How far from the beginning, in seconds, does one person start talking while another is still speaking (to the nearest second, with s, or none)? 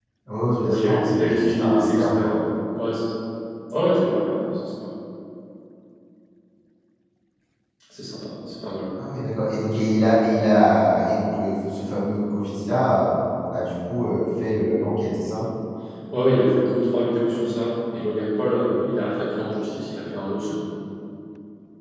1 s